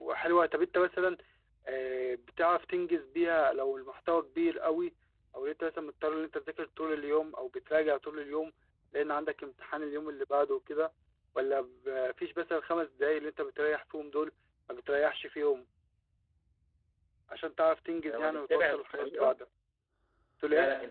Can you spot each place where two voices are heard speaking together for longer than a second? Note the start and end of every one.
18.1-19.3

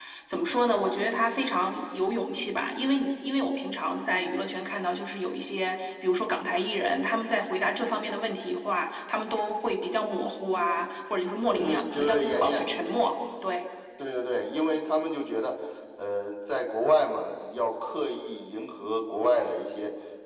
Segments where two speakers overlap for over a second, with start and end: 11.5-13.0

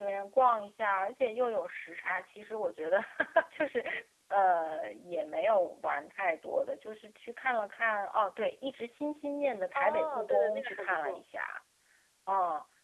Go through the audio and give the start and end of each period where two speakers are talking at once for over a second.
9.8-11.2

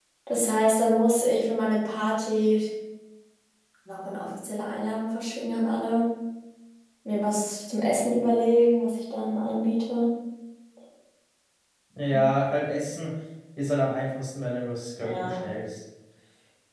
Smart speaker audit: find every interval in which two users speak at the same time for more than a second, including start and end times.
none

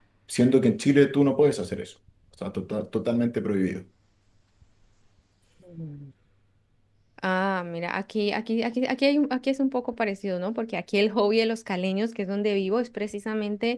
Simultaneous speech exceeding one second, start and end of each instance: none

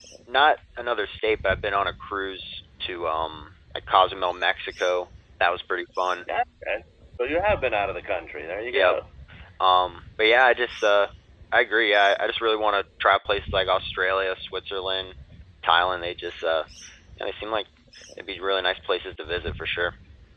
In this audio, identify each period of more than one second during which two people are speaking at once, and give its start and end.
none

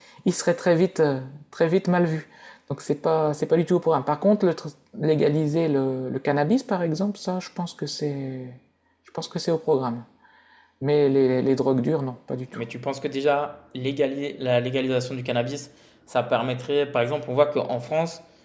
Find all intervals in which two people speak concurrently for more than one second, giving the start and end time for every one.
none

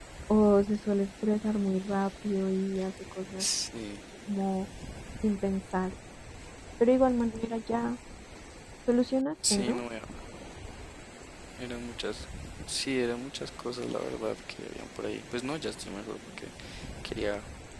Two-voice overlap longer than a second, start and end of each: none

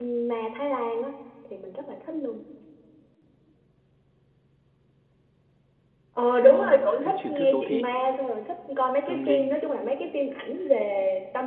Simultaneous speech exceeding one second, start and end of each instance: 6.4-7.8

